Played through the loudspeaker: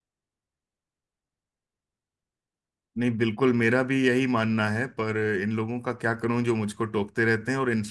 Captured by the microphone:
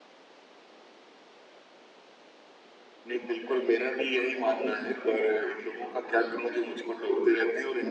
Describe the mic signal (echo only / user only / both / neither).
both